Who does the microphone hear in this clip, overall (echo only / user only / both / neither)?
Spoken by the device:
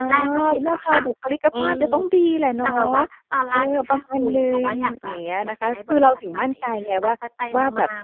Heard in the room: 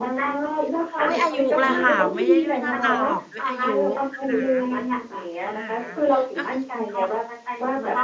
both